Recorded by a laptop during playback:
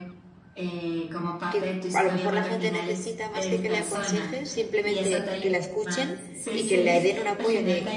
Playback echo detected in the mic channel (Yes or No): Yes